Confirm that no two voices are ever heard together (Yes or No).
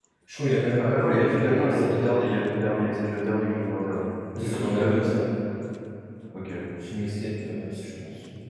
No